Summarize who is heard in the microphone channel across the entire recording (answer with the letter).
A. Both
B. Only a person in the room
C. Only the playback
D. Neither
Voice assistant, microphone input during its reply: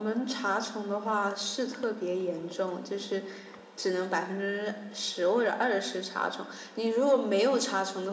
C